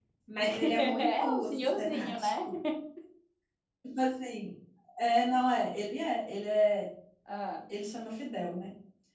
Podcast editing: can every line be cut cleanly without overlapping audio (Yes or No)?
No